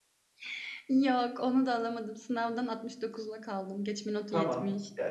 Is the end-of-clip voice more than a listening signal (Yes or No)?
Yes